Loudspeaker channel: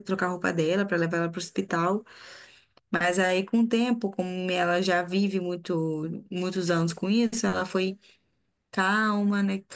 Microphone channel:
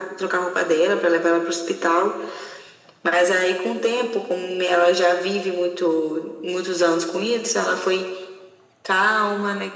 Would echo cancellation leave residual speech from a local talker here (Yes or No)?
No